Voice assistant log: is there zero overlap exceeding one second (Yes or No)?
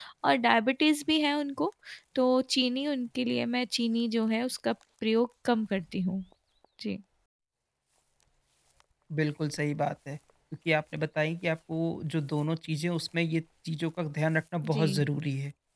Yes